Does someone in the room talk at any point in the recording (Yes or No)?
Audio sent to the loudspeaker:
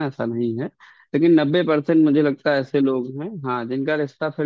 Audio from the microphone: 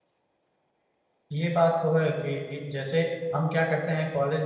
Yes